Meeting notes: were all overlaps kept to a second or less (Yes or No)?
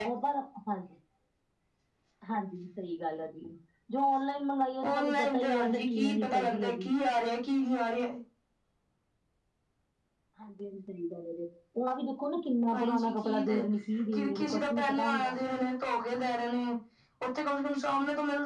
No